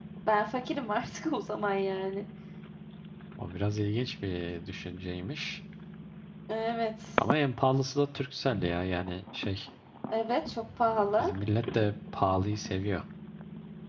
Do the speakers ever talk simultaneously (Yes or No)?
No